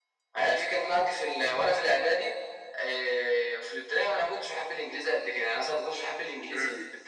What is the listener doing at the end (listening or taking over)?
taking over